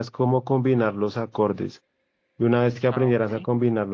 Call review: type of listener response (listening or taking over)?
listening